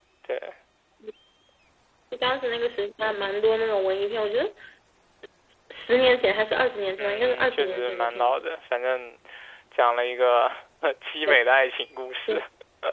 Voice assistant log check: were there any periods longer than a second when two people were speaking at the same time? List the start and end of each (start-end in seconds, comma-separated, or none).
7.0-8.4